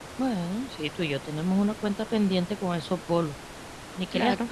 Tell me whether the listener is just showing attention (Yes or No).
No